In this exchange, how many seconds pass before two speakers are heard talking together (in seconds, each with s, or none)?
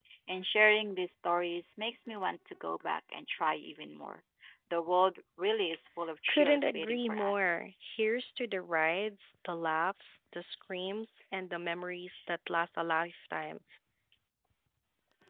6.3 s